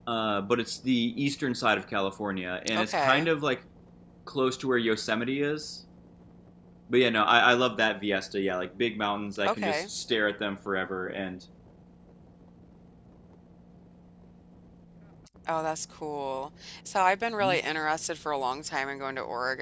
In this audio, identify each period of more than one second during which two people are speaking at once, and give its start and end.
none

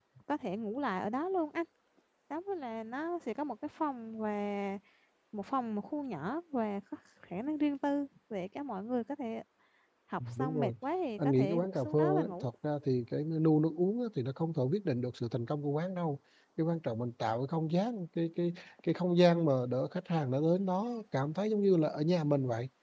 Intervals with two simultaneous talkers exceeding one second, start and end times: 11.2-12.5

